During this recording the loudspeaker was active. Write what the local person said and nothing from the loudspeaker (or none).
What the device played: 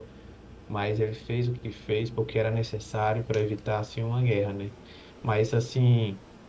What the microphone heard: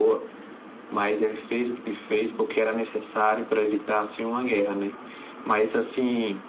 none